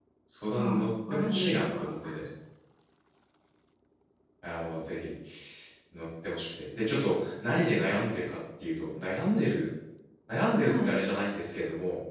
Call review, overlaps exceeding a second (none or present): present